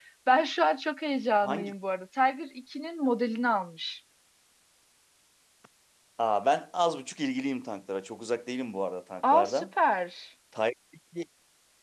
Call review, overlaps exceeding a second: none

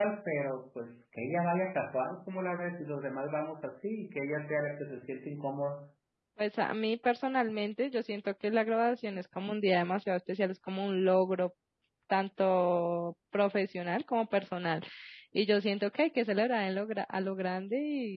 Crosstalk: none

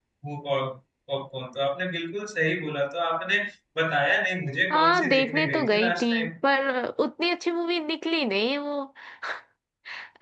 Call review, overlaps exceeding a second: present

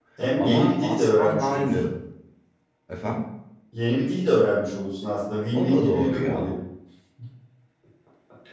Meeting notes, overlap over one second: present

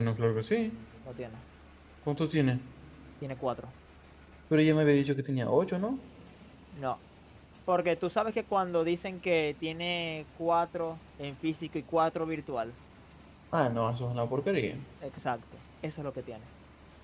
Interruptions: none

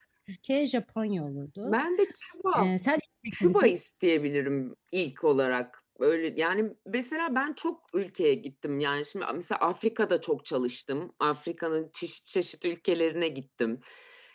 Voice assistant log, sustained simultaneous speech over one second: none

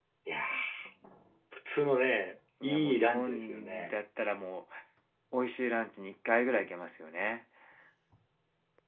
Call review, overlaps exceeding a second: present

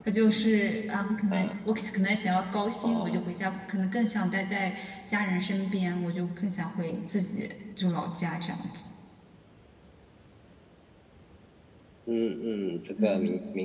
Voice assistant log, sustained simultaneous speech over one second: none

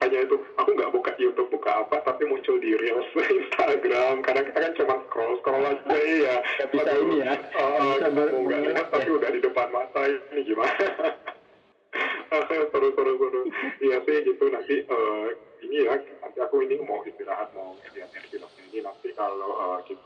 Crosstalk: present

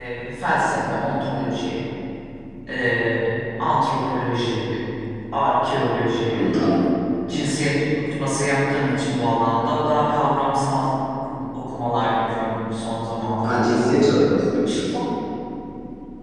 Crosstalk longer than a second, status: none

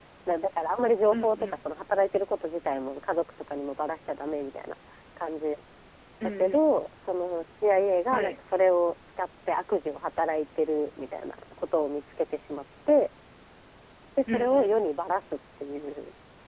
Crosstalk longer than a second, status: none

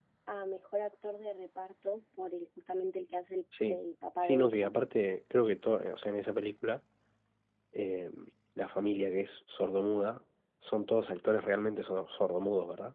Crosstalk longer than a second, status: none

